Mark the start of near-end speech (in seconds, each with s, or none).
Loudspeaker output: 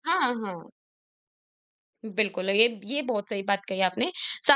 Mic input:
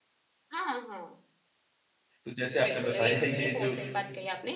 2.2 s